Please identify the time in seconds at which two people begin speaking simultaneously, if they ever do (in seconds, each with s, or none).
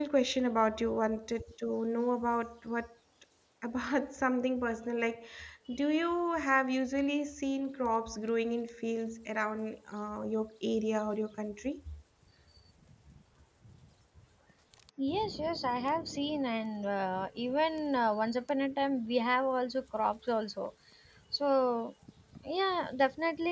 none